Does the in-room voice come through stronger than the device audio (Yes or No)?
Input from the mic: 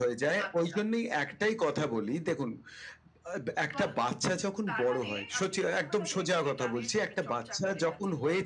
No